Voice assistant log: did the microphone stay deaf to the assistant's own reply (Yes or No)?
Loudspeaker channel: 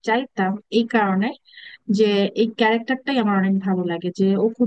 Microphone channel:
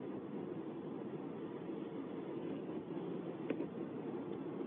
Yes